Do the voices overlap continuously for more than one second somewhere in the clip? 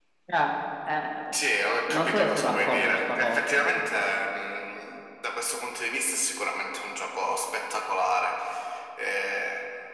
Yes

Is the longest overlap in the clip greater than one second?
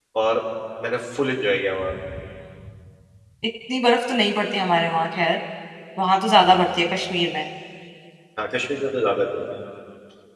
No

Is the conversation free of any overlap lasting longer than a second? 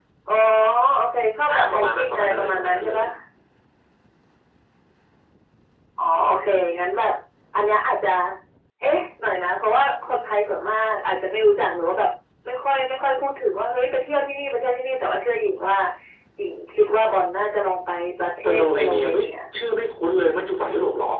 No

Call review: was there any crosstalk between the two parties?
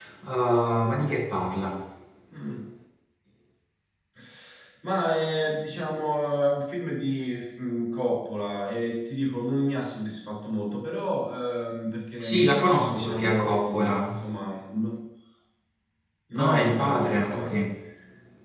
Yes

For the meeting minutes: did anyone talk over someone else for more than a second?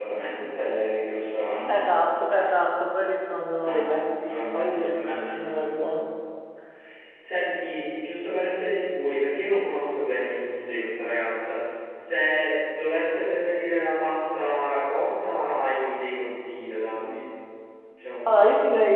Yes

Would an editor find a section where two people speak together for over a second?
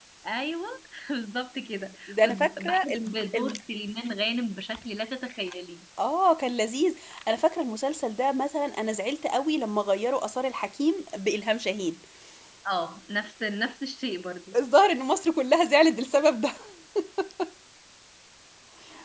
Yes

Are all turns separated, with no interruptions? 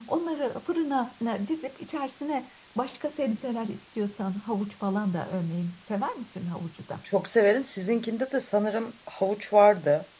Yes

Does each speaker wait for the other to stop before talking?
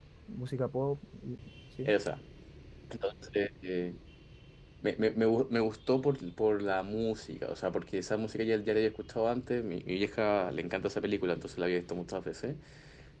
Yes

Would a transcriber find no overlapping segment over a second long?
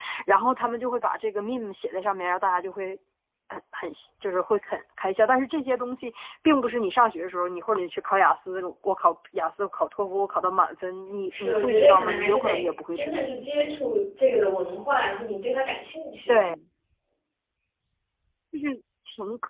No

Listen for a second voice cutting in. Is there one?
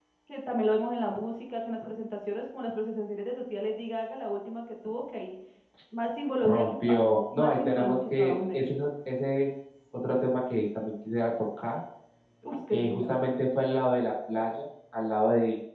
Yes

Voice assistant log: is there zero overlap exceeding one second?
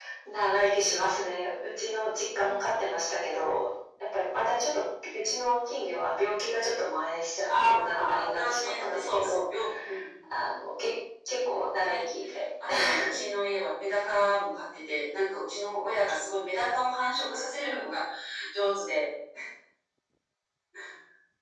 No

